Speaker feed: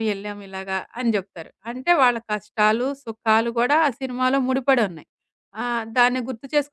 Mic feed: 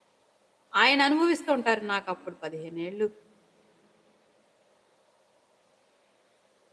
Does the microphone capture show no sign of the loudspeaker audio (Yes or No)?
Yes